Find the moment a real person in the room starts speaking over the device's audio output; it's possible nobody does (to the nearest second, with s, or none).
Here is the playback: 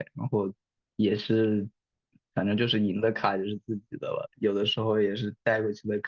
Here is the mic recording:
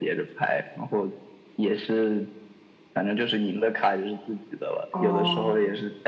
5 s